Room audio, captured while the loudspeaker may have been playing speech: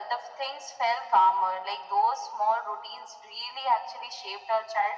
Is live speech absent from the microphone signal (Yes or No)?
Yes